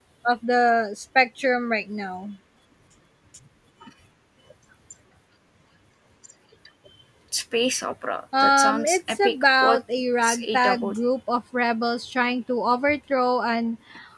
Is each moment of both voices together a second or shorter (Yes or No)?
No